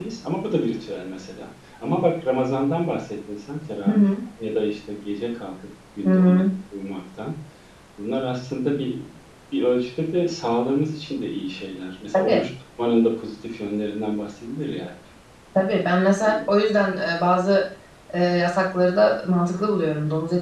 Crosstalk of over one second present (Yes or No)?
No